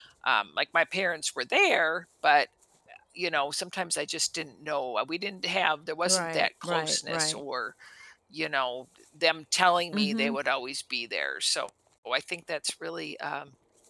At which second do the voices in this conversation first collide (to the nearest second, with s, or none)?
6 s